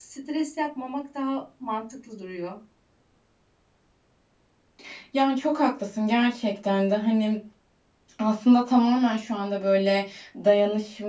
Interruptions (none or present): none